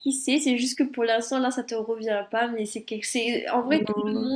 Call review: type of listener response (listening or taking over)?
listening